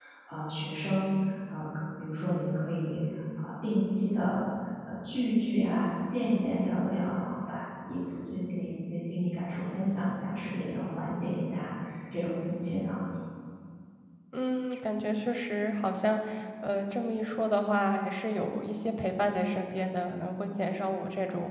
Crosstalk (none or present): none